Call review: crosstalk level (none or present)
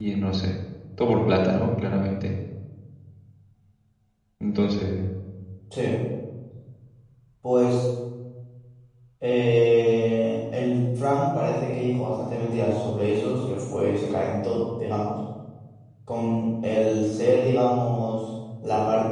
none